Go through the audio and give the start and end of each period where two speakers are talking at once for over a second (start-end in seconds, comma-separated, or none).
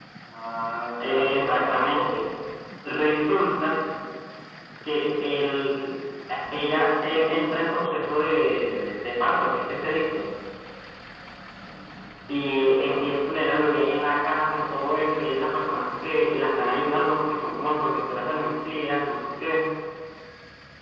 1.0-2.3